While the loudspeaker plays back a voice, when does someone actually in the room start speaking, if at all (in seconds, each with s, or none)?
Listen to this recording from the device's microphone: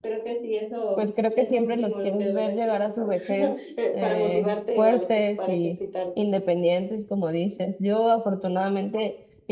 0.9 s